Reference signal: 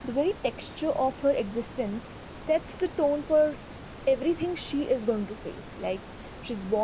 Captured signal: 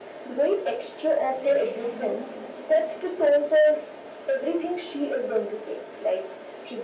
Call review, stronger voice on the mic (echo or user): echo